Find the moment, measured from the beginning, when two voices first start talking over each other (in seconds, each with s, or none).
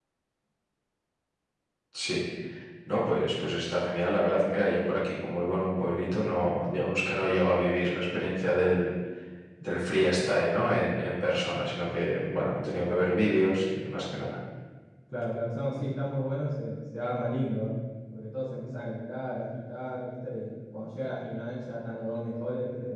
none